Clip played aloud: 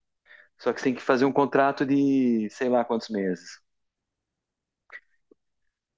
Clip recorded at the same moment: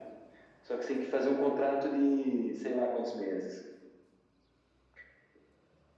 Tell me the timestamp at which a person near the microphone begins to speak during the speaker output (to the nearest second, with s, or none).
none